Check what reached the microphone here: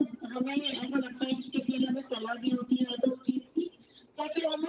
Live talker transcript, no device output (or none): none